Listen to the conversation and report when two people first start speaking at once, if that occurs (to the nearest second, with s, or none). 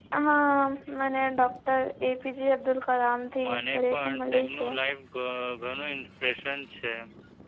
3 s